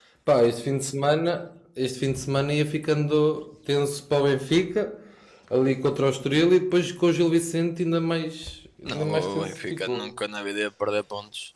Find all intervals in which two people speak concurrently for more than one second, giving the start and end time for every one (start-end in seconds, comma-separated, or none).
8.8-10.1